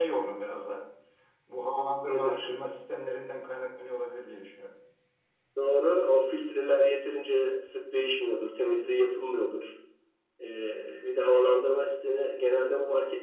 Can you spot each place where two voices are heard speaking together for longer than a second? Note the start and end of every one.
none

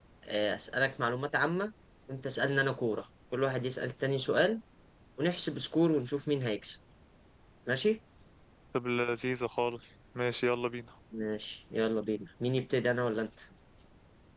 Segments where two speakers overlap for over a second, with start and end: none

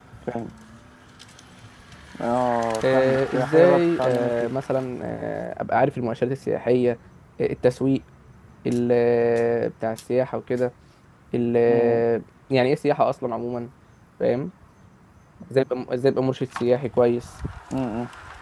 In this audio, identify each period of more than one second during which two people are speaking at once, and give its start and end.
2.9-4.5

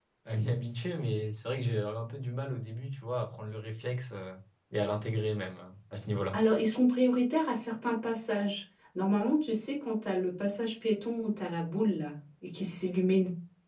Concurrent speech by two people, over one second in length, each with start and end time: none

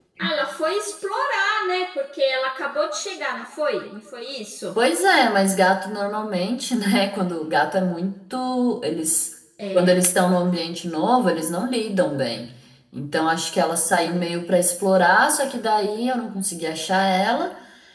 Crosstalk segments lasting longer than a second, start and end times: none

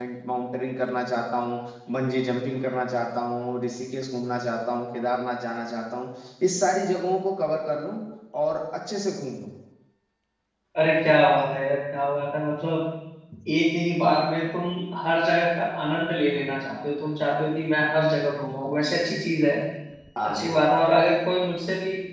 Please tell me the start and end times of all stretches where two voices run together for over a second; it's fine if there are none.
none

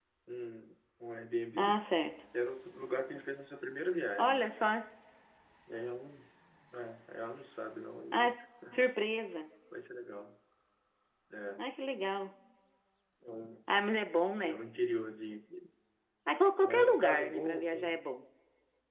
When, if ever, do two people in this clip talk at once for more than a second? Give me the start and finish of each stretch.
16.6-17.9

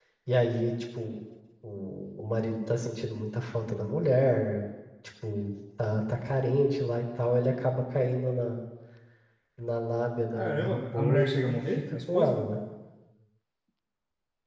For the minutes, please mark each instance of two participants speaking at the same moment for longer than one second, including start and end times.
10.3-12.4

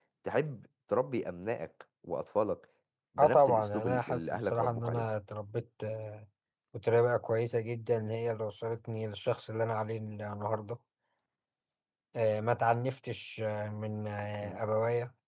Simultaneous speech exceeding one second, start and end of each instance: 3.2-5.0

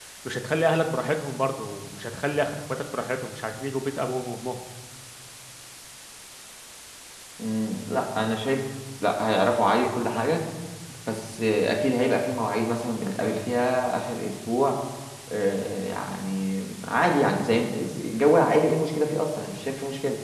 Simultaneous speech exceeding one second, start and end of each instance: none

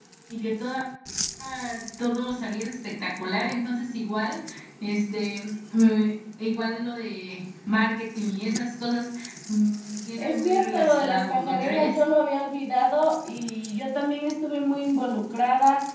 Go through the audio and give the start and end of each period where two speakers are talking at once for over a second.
10.2-12.0

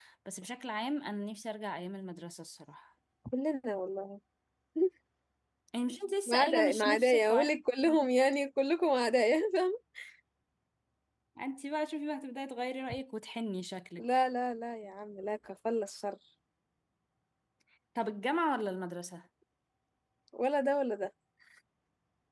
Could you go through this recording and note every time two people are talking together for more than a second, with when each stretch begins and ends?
6.3-7.5

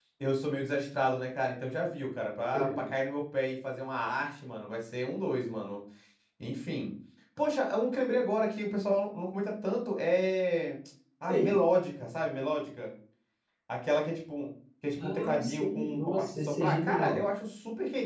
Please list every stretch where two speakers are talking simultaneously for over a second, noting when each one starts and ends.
15.0-17.2

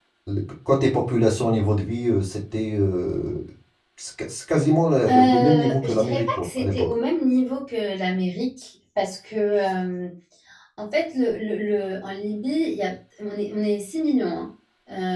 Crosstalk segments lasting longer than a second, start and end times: 5.1-6.9

